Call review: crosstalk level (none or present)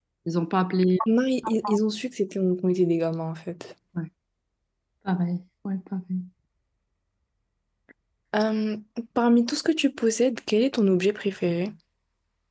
none